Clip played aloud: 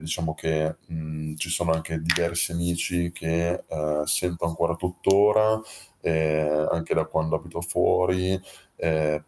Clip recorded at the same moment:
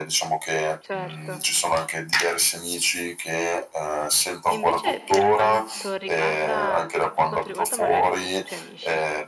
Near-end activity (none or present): present